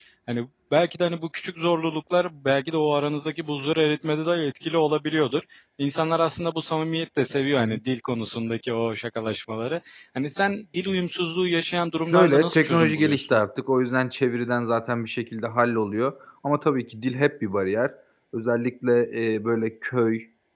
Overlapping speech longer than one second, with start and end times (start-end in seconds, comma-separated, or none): 12.1-13.4